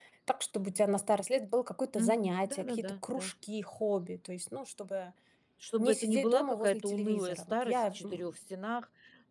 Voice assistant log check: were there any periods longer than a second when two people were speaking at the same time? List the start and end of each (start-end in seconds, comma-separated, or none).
1.9-3.3, 5.8-8.3